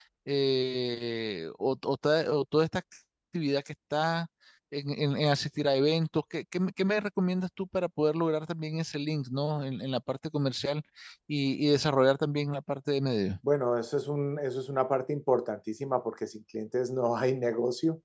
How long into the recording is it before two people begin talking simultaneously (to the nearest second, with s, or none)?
none